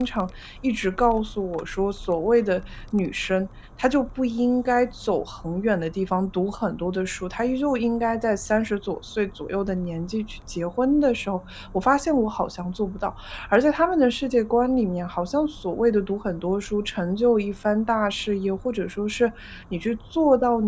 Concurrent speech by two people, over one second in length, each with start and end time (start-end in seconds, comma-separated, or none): none